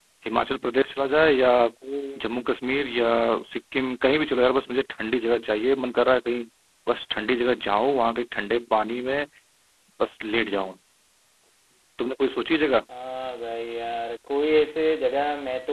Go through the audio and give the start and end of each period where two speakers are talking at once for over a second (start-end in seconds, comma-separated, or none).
none